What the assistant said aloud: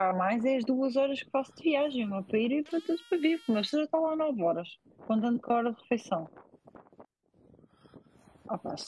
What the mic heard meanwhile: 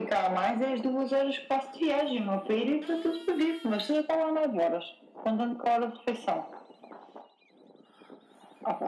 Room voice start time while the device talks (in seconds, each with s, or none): none